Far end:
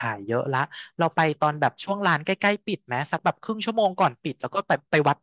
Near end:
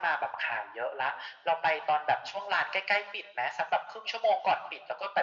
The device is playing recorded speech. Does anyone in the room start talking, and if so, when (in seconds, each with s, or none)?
none